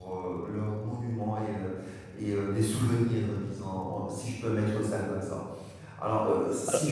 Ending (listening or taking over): listening